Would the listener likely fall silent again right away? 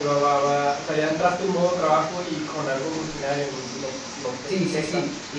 No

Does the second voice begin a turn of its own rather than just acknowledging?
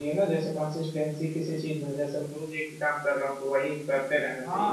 Yes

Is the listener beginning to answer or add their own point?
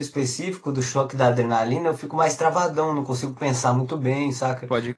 No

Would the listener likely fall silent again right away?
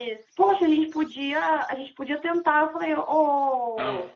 Yes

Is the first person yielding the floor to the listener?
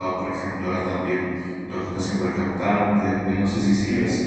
No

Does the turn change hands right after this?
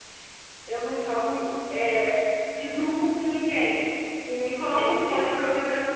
No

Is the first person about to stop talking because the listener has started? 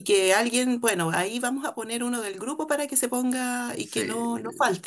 No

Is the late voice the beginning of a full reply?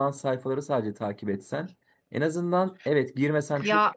No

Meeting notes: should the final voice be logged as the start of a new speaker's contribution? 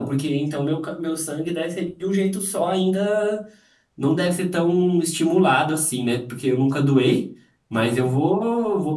No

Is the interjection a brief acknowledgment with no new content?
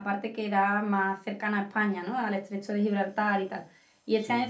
Yes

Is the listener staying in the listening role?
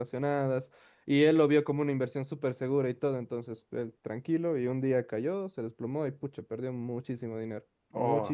No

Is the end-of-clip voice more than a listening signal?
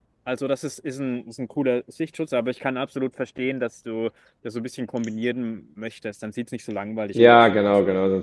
Yes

